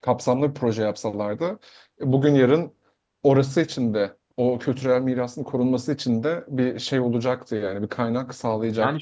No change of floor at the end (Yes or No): No